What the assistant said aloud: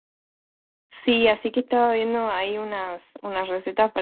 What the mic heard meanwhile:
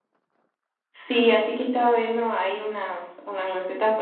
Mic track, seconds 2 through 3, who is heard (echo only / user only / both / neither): echo only